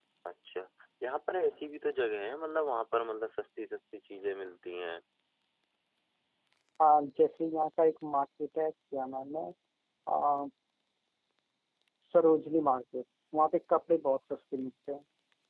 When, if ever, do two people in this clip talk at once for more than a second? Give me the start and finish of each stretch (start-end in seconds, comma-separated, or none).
none